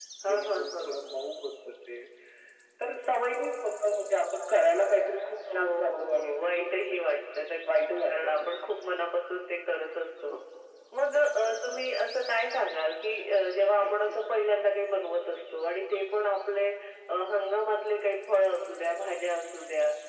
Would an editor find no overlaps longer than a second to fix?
No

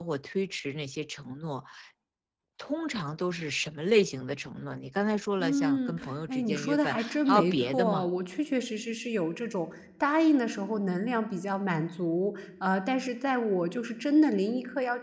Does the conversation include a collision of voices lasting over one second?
Yes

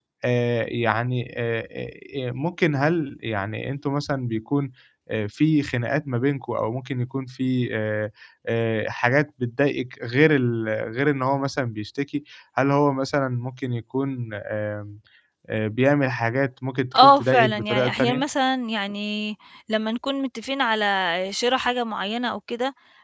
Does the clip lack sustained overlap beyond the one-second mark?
No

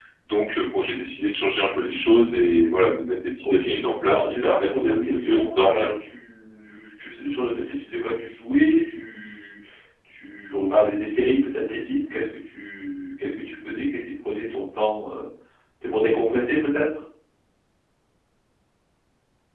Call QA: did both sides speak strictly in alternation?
No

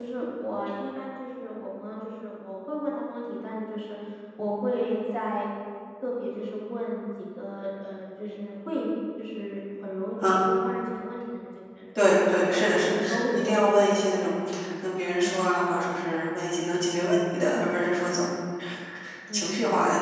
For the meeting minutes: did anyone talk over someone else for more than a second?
Yes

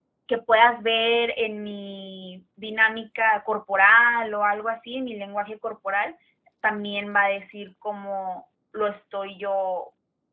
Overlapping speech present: No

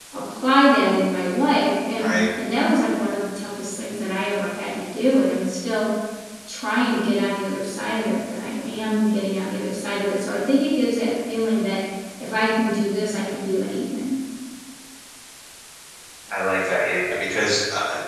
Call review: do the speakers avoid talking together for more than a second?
Yes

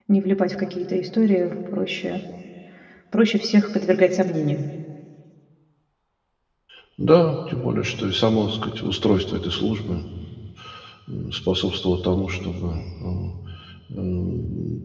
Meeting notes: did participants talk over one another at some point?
No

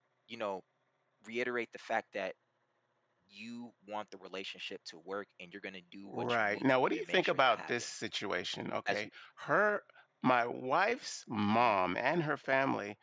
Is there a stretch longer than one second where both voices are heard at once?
Yes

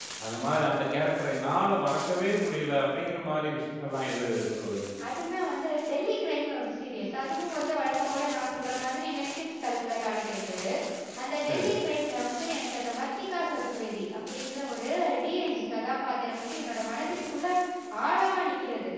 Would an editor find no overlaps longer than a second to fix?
Yes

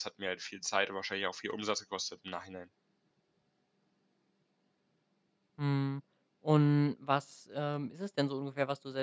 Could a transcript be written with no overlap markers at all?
Yes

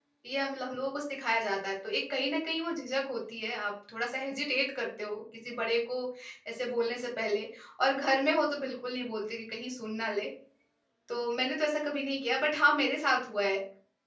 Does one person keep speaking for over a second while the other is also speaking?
No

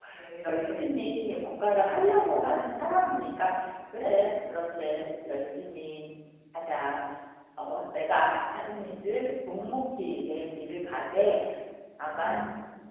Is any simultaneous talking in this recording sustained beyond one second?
No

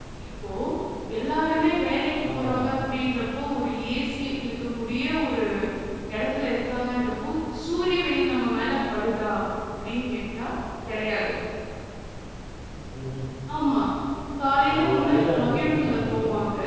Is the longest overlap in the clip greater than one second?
Yes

